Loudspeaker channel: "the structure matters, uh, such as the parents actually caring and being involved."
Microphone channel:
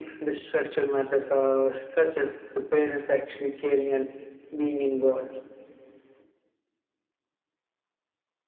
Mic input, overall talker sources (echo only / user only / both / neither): echo only